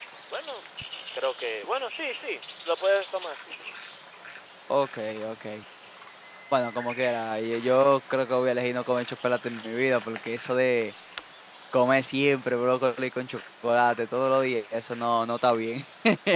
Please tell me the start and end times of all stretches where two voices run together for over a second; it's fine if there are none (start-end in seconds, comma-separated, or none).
none